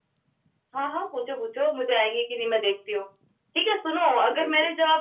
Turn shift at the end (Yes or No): No